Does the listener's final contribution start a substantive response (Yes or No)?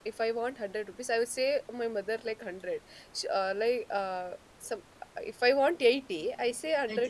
No